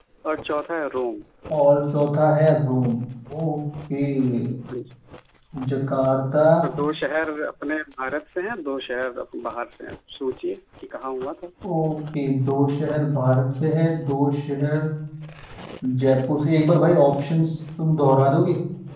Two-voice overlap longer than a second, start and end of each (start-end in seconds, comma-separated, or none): none